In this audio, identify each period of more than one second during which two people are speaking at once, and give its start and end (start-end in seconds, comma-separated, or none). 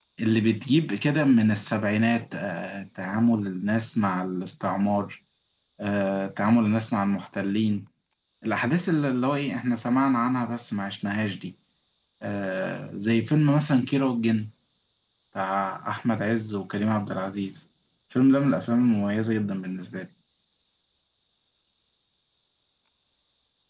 none